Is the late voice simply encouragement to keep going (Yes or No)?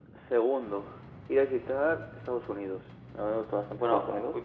No